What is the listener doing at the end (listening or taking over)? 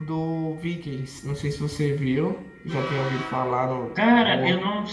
taking over